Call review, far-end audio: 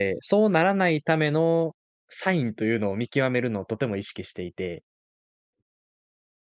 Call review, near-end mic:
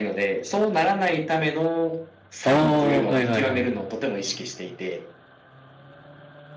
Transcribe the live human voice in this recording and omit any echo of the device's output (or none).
ああ、はいはいはい。